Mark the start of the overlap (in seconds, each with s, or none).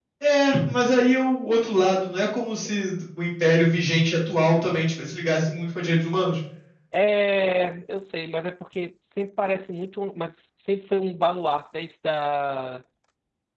none